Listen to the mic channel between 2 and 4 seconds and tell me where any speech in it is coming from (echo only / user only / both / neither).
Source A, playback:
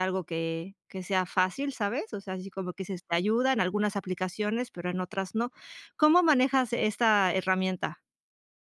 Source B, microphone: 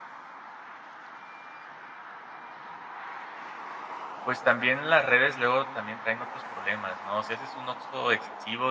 neither